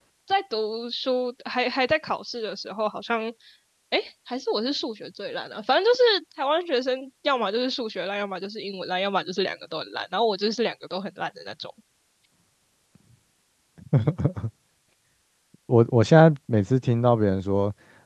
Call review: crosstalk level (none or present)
none